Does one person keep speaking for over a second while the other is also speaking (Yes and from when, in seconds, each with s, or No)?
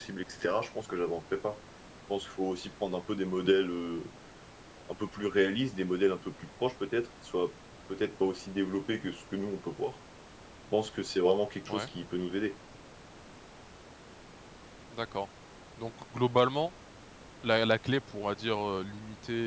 No